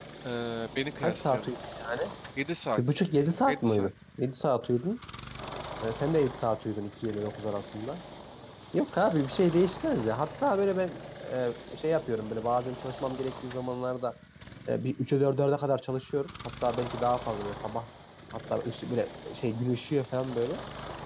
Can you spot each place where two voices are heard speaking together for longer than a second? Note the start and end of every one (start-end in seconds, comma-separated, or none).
none